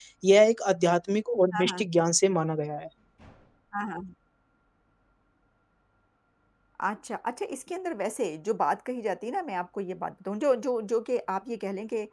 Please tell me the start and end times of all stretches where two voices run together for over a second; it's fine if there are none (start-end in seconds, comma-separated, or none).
none